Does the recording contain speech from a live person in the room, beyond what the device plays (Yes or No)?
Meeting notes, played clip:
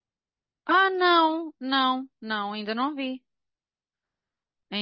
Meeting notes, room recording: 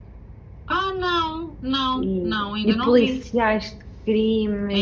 Yes